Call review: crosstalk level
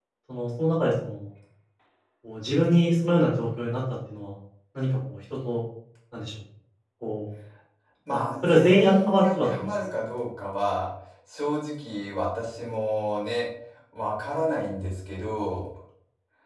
present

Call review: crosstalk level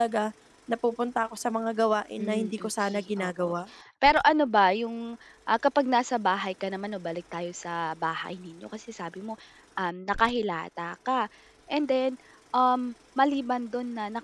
present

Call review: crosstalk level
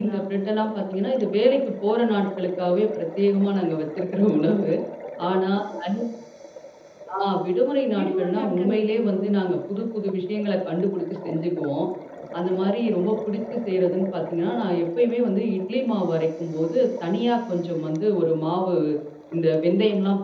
present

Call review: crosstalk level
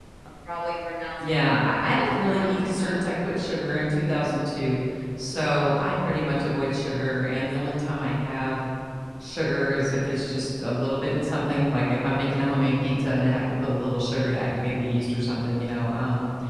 present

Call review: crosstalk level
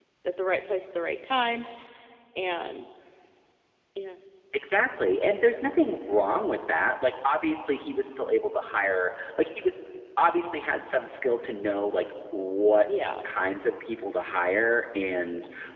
none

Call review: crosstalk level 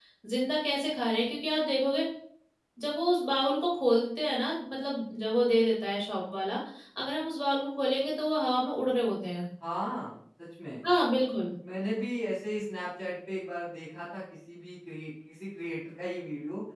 none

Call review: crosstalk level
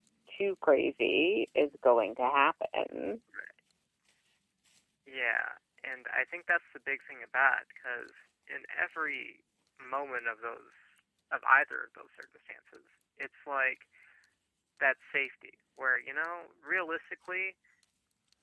none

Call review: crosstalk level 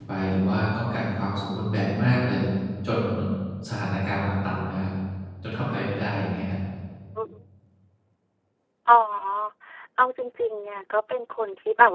none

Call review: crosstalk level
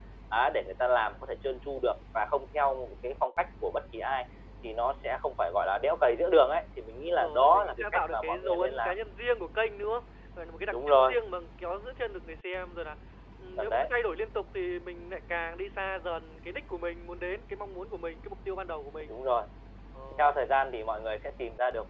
present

